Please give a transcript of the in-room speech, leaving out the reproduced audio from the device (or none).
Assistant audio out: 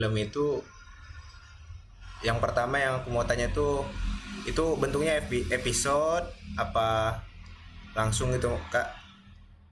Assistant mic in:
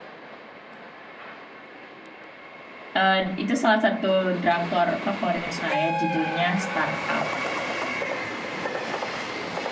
eh, itu salah satu drakor favorit saya judulnya Startup